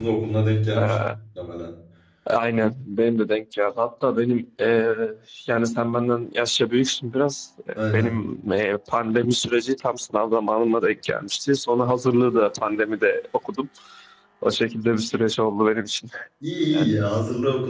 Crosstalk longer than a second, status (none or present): none